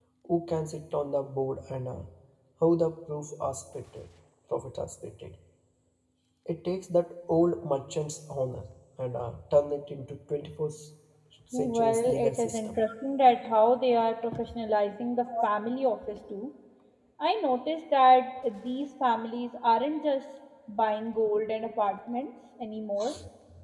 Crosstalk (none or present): present